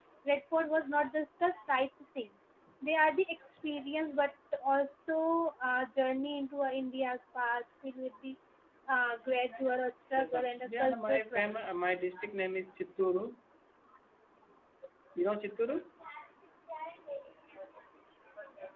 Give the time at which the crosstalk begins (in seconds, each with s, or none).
10.2 s